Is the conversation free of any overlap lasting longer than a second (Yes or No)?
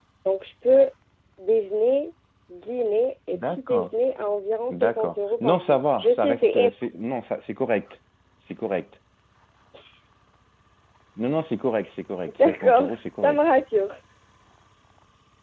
No